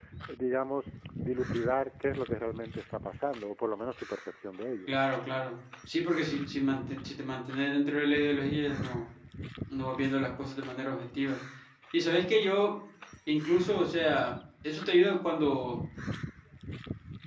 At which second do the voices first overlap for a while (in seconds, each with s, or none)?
none